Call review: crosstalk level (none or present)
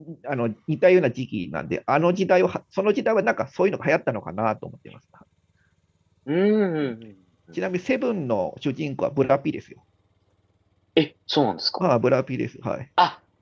none